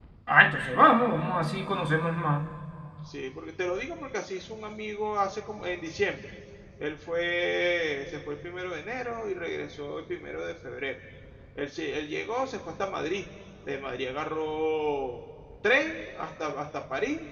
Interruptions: none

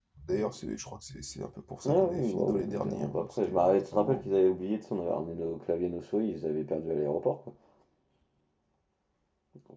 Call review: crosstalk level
present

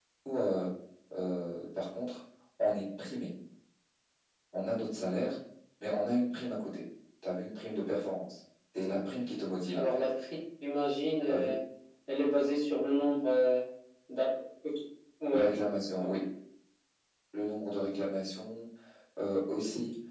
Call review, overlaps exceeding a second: none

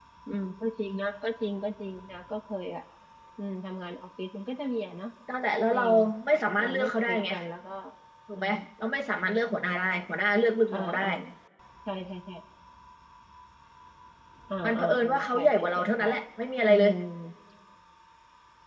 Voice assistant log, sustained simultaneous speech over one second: present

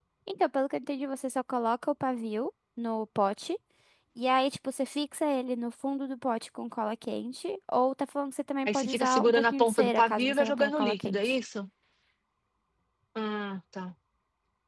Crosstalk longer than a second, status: present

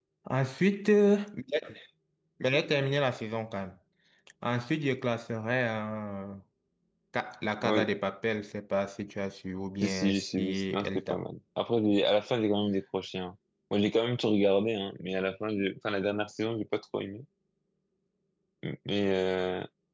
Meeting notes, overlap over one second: present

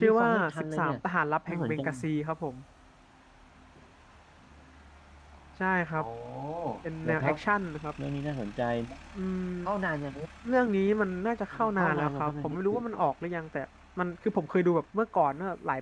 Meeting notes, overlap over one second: present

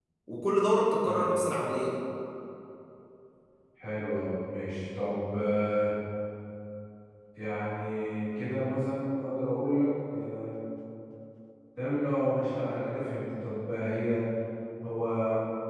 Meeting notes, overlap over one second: none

